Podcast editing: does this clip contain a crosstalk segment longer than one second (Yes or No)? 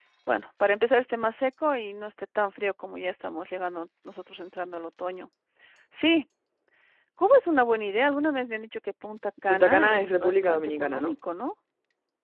Yes